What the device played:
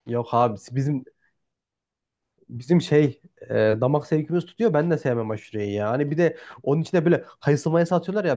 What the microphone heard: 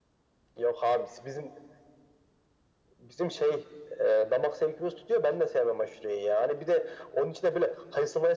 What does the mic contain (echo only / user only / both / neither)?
echo only